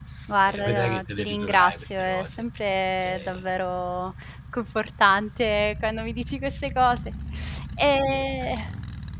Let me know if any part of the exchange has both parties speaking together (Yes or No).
Yes